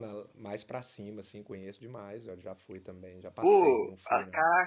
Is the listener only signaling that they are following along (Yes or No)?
No